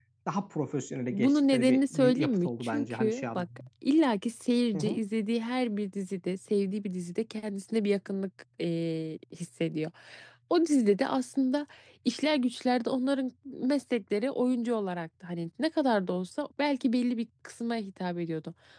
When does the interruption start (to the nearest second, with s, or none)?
1 s